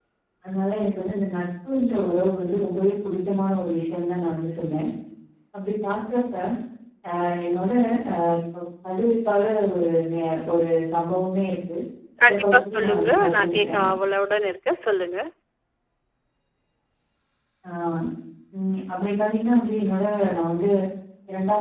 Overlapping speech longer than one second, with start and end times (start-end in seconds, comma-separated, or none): 12.3-13.8